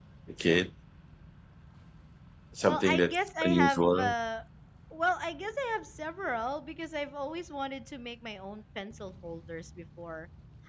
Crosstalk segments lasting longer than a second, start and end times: 2.6-4.1

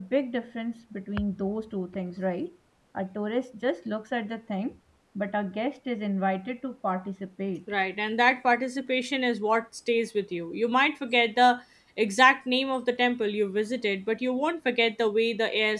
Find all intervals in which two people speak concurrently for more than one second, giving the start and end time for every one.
none

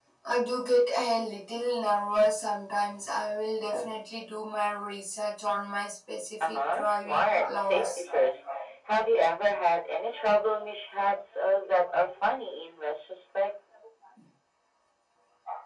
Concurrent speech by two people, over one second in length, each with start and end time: 6.4-8.0

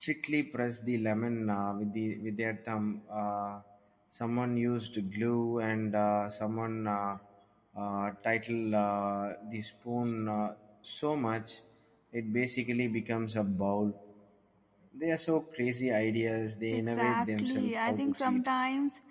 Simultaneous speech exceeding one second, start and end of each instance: 16.7-18.5

